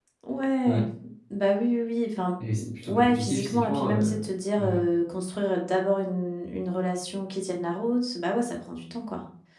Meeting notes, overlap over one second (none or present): present